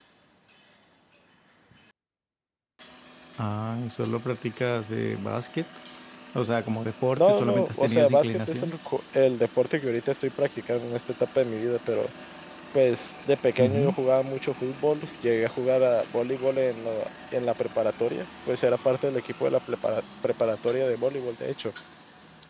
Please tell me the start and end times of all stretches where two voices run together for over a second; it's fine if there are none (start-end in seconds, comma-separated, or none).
7.1-8.7